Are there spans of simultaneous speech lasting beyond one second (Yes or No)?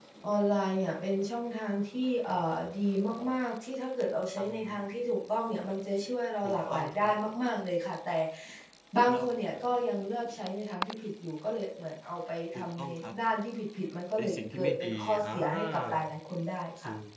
Yes